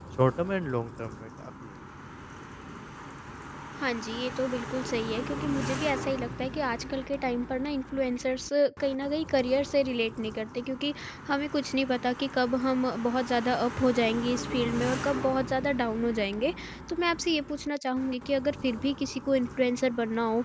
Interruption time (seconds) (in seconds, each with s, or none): none